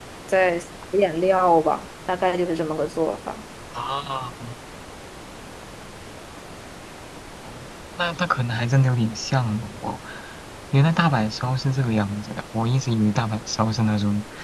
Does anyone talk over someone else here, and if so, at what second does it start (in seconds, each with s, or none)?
none